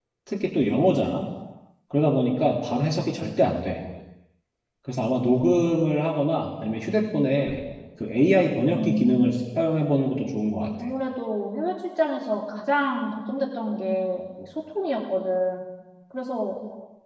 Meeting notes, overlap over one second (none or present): none